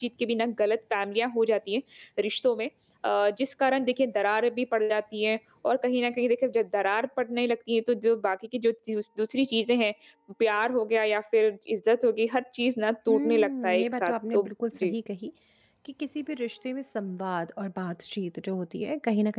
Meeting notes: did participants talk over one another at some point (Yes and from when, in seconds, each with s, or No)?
Yes, from 13.1 s